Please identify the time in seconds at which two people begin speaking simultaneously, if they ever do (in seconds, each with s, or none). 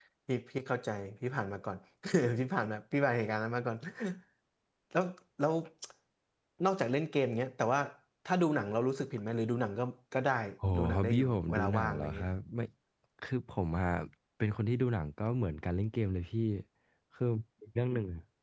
10.8 s